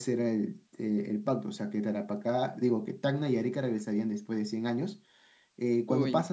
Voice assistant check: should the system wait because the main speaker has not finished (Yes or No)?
Yes